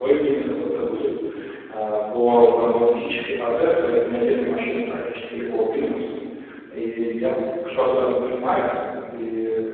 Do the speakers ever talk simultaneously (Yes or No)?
No